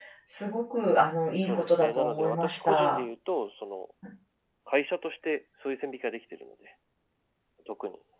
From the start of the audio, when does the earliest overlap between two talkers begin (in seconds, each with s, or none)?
1.4 s